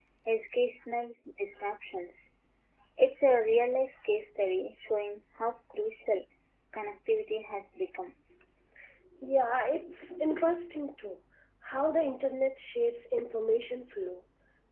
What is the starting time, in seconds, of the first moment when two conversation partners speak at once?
none

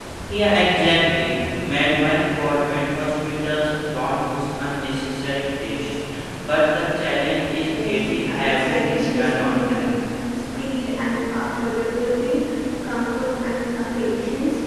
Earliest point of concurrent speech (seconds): 7.7 s

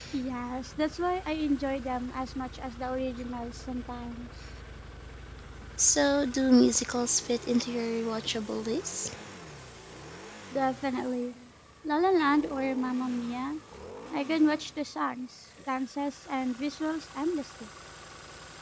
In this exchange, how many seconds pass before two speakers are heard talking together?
none

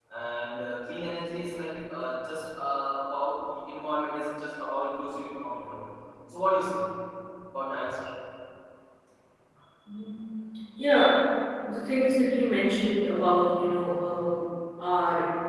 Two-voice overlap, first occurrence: none

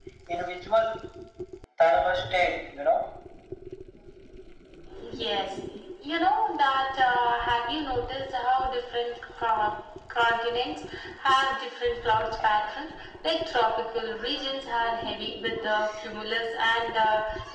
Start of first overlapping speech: none

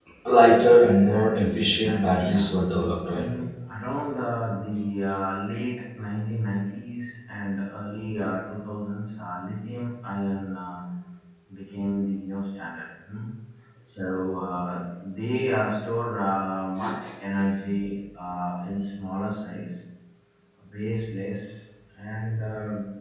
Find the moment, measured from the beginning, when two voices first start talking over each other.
0.7 s

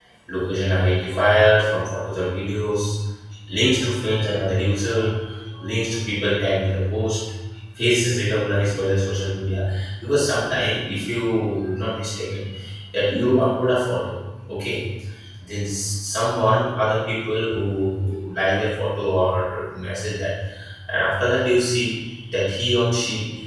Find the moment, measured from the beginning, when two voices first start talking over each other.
none

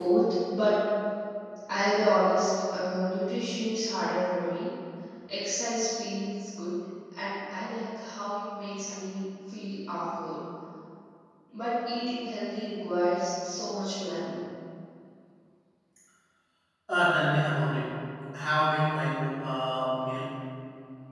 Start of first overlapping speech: none

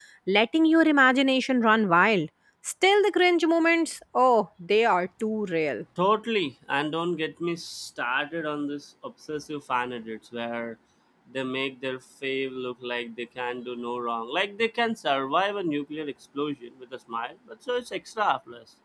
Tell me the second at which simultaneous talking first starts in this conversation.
none

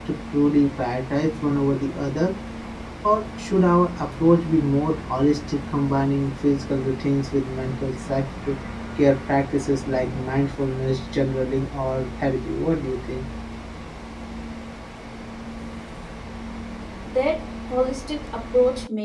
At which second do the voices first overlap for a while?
none

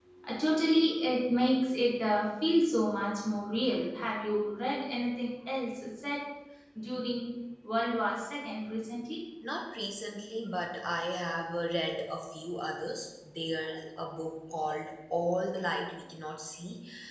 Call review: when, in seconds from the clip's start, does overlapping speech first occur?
none

